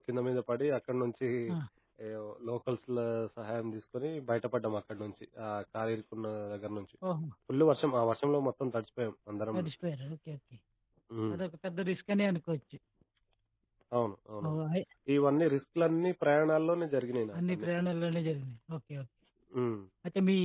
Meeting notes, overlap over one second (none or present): none